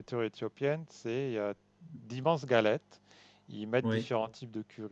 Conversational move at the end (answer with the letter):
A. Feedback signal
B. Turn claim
A